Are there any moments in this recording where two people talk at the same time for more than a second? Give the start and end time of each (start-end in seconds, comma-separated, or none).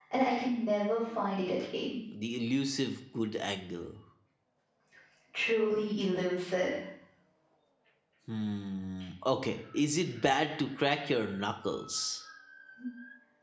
none